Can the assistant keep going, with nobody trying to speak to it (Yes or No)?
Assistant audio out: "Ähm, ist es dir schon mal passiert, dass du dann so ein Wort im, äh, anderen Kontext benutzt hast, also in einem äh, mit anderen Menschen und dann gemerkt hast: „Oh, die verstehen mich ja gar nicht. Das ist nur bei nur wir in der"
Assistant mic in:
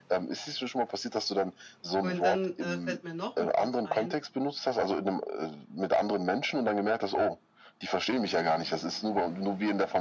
No